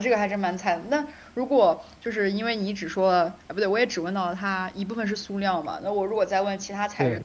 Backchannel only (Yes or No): Yes